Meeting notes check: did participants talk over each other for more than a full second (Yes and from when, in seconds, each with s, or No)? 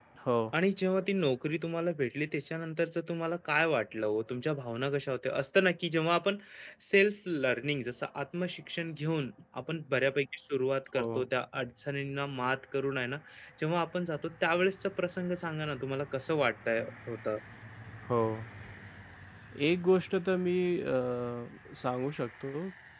No